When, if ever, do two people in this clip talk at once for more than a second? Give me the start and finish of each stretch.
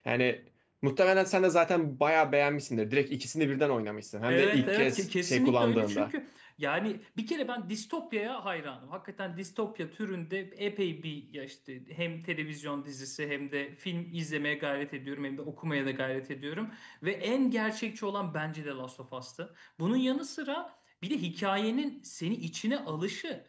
4.3-6.1

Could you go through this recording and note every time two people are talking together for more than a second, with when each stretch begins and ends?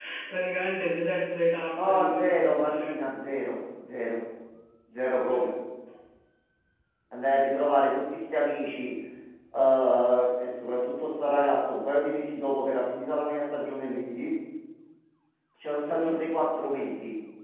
1.8-3.0

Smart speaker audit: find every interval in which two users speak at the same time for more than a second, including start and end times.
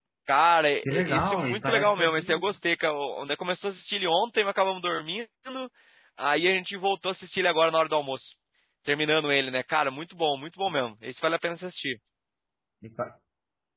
0.8-2.4

